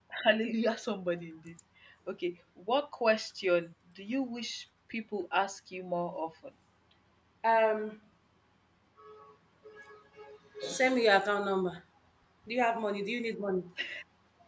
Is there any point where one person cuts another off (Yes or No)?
No